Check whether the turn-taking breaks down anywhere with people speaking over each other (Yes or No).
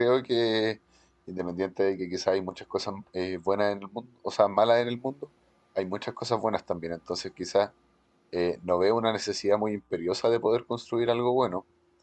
No